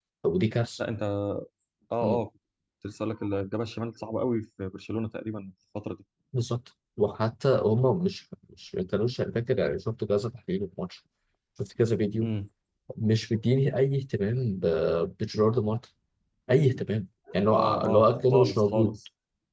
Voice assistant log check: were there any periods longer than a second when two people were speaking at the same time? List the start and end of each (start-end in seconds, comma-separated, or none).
17.5-19.0